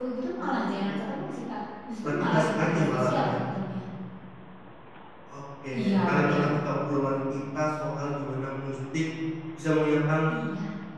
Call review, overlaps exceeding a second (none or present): present